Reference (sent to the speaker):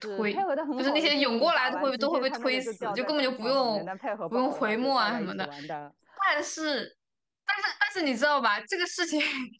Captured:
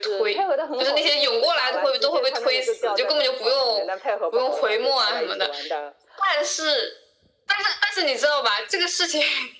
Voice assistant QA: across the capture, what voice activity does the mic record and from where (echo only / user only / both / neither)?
echo only